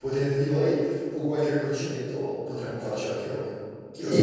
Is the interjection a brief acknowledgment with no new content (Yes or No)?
No